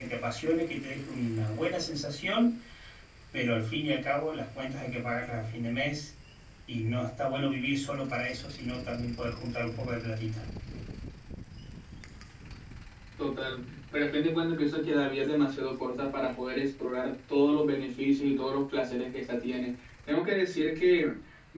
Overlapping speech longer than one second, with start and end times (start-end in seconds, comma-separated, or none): none